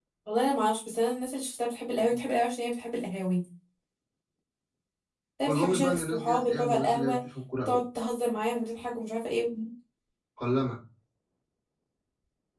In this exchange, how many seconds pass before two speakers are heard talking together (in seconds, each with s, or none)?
5.4 s